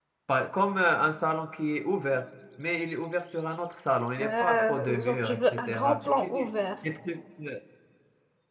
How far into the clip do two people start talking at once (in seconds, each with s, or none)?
4.2 s